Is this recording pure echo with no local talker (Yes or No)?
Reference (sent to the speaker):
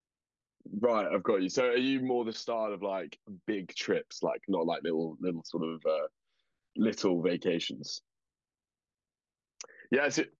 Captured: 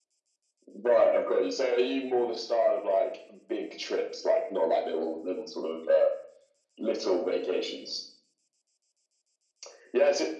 Yes